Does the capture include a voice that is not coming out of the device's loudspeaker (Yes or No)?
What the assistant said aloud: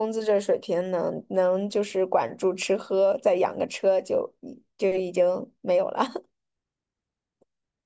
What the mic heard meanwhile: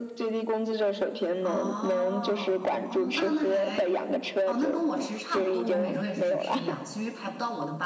Yes